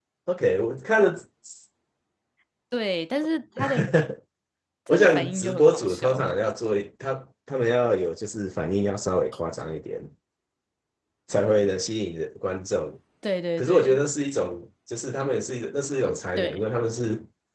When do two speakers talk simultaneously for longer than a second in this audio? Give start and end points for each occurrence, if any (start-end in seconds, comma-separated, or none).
4.9-6.2